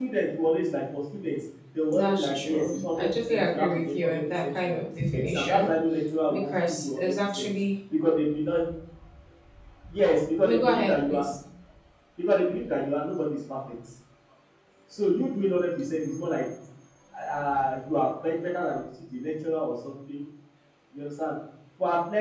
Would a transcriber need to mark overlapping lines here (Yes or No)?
Yes